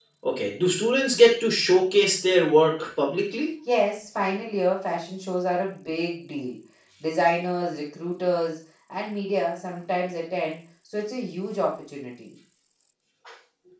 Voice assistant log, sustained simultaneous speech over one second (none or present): none